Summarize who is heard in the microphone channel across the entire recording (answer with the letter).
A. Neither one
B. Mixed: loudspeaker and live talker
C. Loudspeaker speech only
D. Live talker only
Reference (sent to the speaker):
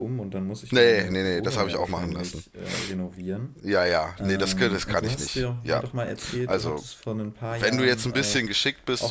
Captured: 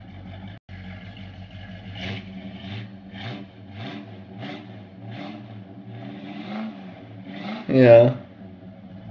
D